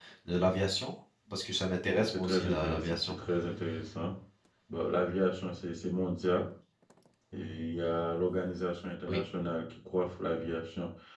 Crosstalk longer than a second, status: present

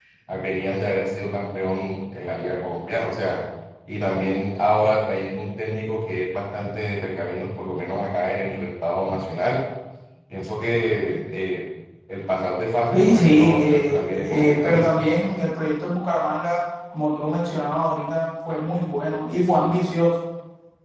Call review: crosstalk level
present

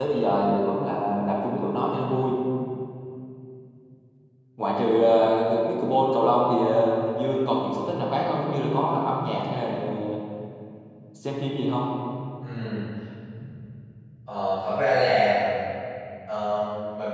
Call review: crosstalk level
none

